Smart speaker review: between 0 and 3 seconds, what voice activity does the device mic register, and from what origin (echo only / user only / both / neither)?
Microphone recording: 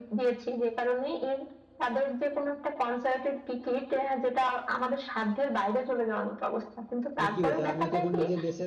echo only